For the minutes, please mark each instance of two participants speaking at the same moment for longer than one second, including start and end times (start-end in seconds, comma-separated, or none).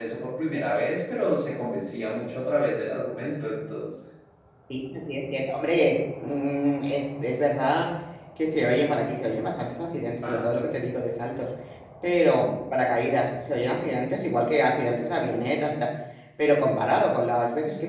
none